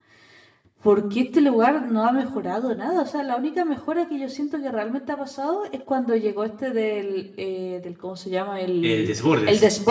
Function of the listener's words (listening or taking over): listening